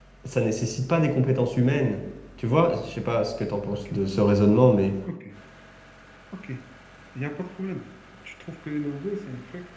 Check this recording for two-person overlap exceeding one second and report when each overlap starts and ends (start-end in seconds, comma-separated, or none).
none